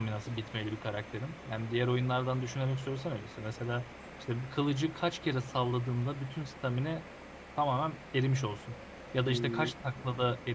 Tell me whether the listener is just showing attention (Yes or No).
Yes